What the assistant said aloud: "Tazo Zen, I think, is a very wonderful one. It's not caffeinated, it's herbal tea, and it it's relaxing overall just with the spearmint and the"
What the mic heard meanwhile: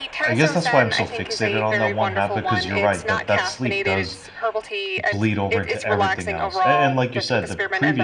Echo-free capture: No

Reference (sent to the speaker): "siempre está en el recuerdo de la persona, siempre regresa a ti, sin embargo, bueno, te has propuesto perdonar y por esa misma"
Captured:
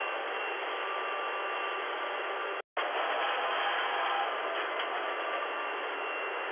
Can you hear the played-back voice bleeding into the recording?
No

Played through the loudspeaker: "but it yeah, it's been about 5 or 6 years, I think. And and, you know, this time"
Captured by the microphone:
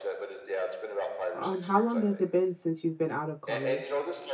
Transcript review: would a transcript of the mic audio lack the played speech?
No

